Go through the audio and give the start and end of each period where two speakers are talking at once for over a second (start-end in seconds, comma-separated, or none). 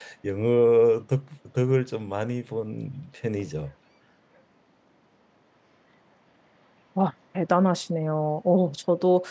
none